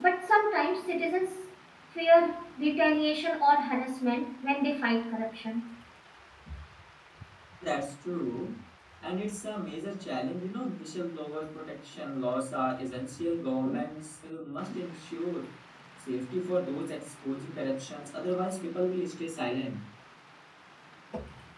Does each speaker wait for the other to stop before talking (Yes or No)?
Yes